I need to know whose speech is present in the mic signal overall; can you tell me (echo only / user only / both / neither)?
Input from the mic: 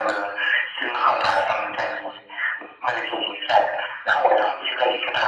echo only